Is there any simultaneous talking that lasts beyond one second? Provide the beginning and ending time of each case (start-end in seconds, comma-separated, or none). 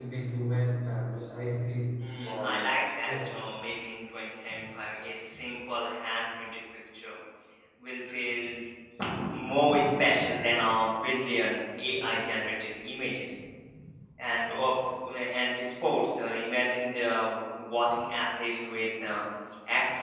2.0-3.3